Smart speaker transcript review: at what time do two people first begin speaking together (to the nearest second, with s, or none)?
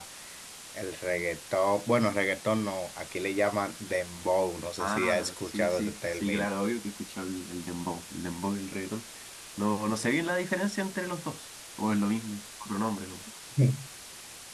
5 s